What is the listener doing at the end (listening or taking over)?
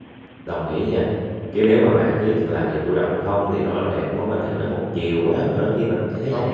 taking over